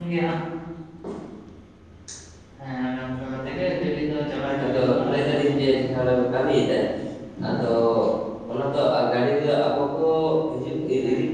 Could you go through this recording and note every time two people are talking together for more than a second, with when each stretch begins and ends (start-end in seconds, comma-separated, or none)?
4.6-5.9